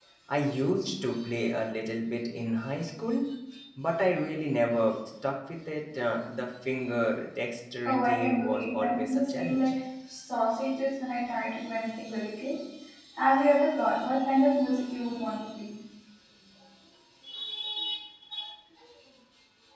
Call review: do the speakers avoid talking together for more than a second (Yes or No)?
No